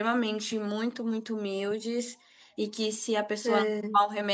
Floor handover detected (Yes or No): No